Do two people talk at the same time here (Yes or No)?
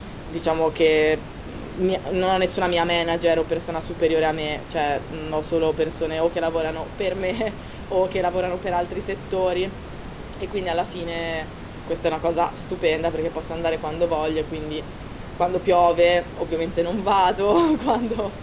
No